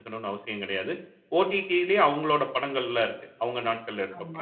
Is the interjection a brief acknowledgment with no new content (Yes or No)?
No